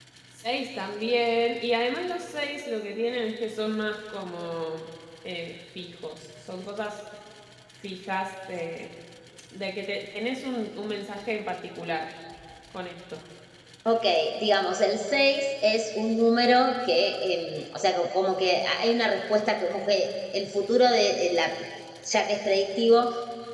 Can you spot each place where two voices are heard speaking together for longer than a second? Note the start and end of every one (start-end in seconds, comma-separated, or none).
none